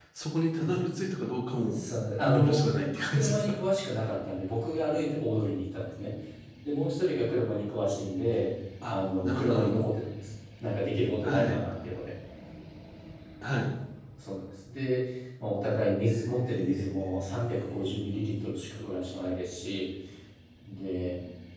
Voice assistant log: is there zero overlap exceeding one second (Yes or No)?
No